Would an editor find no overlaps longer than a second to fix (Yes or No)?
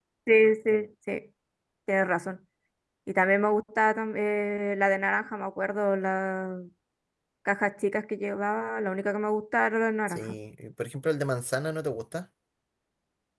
Yes